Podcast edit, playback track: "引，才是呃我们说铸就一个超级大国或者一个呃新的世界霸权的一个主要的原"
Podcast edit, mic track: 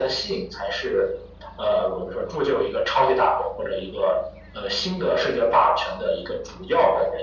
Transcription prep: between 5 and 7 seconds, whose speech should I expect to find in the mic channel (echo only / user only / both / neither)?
echo only